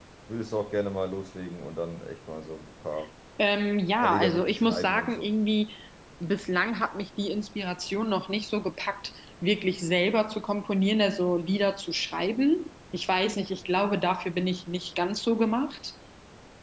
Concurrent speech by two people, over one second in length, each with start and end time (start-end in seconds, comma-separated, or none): 4.0-5.3